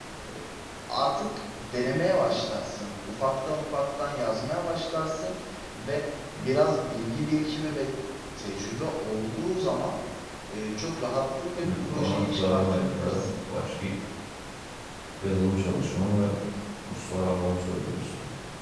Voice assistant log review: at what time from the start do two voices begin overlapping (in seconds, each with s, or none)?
11.6 s